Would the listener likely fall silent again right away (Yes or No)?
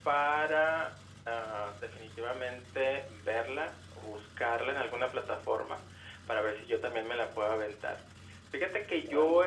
Yes